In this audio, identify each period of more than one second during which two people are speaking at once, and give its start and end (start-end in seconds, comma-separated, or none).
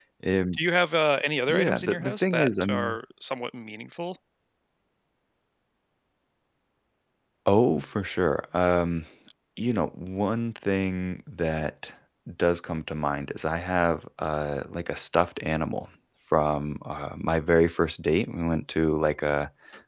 1.5-3.0